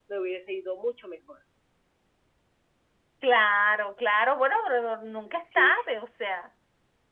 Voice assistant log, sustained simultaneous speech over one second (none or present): none